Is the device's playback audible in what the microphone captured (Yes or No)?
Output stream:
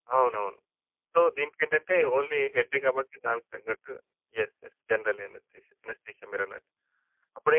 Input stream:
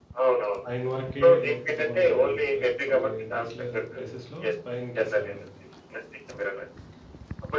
Yes